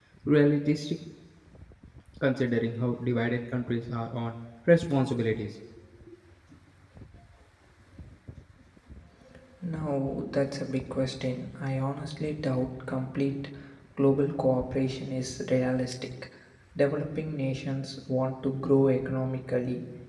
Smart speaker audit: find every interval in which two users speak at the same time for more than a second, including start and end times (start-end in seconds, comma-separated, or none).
none